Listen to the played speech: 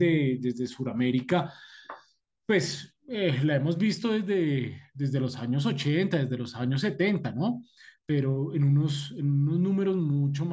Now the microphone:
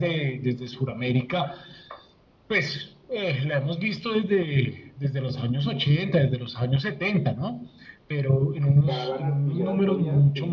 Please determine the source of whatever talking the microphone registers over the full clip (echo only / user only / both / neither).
both